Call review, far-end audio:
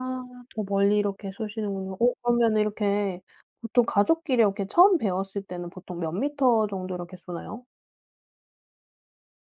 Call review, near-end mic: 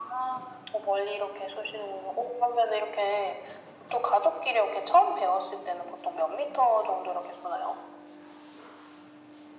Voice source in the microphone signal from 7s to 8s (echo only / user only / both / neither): echo only